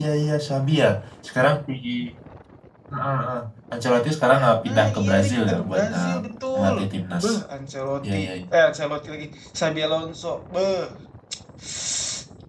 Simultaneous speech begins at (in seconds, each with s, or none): 4.7 s